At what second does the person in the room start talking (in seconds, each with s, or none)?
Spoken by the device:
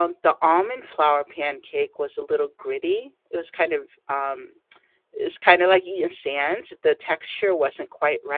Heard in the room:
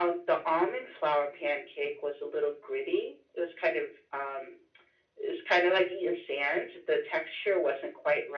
none